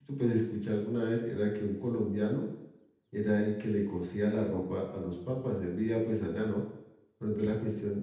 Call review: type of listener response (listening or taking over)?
listening